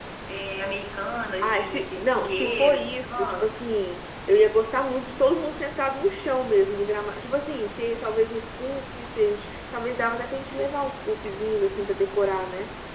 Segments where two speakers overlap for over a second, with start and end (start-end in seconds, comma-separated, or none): 1.4-3.5